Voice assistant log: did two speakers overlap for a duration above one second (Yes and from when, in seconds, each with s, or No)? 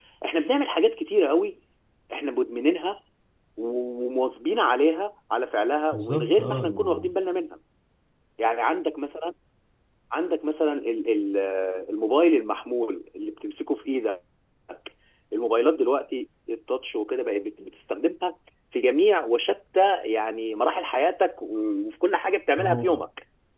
Yes, from 5.9 s